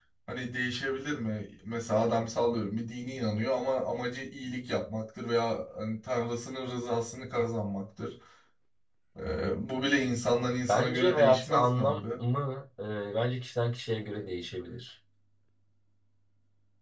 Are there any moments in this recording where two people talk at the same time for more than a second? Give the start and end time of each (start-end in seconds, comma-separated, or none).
10.7-12.0